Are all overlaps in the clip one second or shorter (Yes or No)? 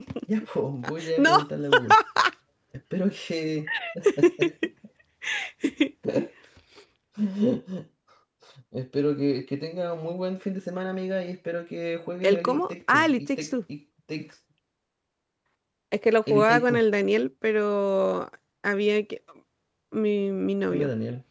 No